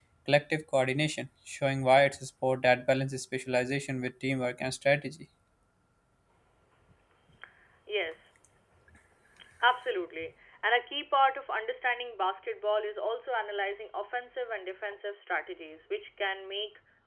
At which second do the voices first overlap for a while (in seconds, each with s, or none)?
none